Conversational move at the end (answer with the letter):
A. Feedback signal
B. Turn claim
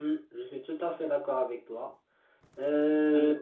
A